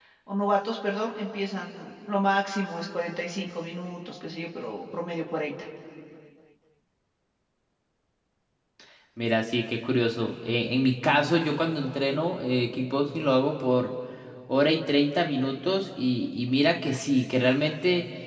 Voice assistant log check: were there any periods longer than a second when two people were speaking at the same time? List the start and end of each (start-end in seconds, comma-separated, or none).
none